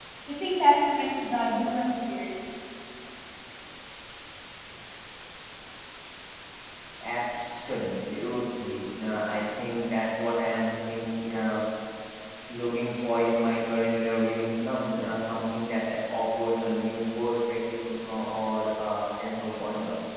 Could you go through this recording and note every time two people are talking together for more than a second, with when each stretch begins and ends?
none

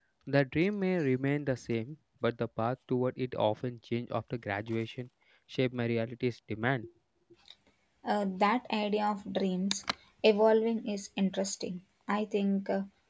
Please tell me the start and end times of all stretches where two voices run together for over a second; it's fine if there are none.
none

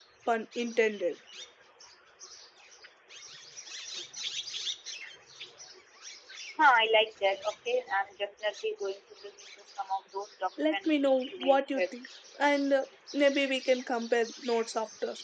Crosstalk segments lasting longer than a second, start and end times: 10.6-11.8

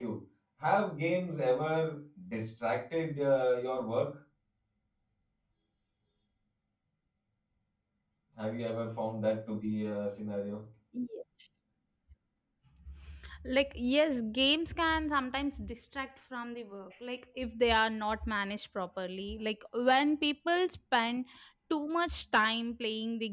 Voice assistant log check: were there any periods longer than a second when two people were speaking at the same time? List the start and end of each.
none

